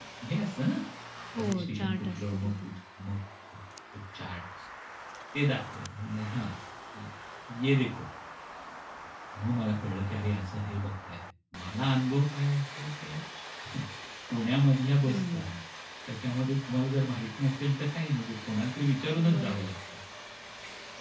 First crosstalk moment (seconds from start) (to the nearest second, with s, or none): 1 s